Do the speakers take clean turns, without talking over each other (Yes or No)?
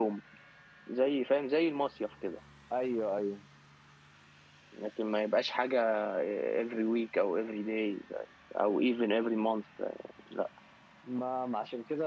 Yes